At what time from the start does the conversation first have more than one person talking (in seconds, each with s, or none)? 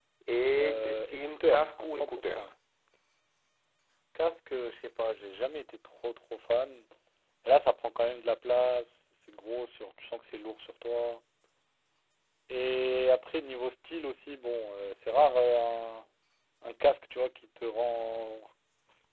0.6 s